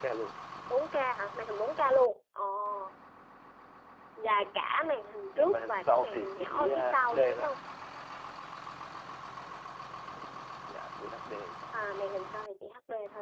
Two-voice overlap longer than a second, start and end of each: 5.3-7.5

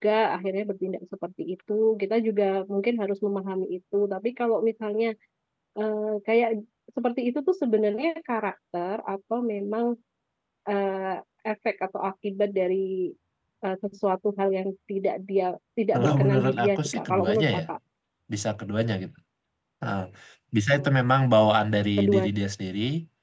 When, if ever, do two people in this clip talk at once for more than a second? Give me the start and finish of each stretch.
15.9-17.6

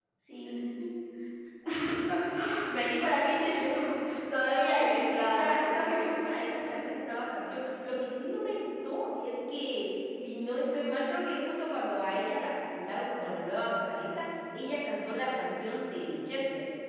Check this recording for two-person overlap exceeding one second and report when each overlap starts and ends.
4.6-6.1

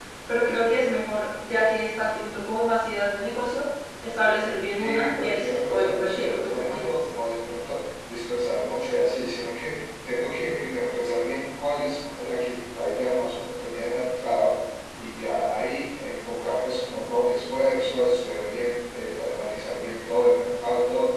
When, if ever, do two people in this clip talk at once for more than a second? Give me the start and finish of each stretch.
4.8-6.9

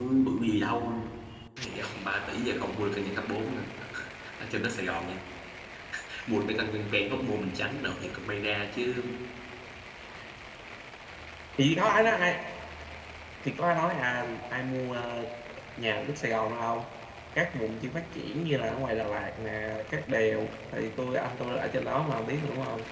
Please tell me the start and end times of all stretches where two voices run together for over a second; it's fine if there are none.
none

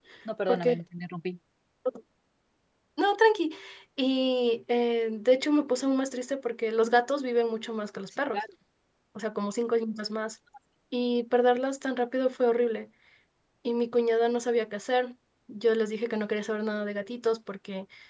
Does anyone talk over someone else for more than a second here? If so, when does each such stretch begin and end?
none

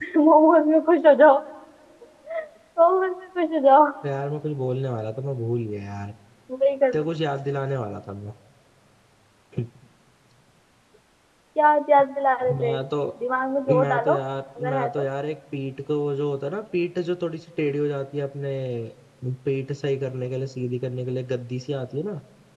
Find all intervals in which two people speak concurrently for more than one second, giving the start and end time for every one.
none

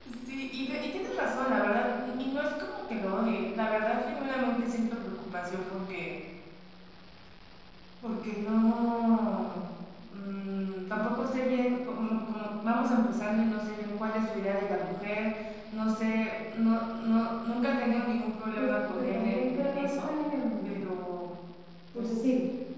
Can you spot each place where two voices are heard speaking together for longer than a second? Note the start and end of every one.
18.6-20.1

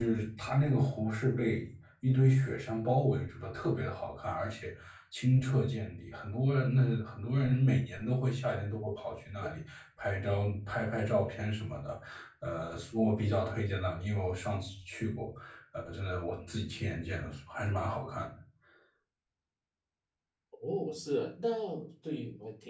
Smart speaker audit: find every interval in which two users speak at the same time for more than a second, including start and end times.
none

